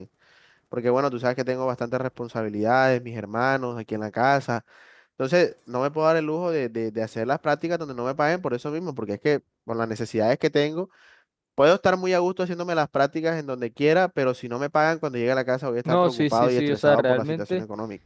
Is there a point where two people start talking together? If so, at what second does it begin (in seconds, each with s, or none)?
15.8 s